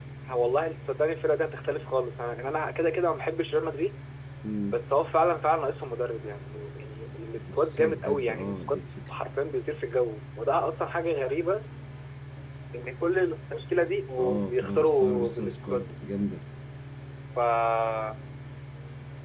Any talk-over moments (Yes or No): Yes